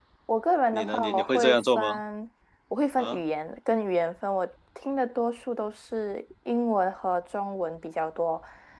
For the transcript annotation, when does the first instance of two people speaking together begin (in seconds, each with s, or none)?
0.7 s